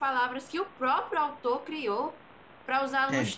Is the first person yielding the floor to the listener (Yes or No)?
No